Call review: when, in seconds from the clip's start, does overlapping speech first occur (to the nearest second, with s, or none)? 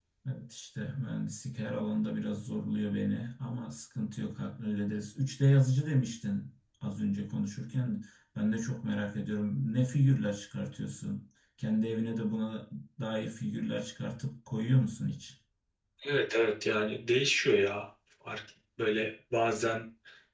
none